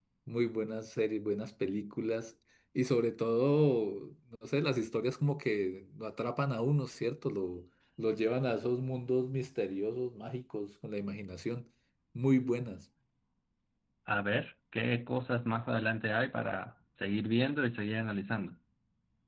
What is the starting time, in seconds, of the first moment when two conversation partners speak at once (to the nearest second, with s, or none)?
none